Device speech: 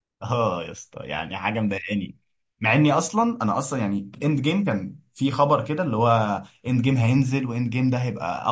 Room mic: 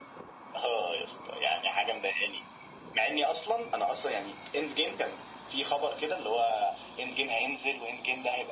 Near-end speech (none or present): none